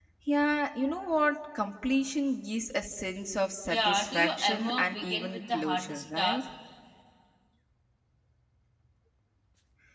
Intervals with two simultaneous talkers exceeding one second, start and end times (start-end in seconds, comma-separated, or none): 3.7-6.4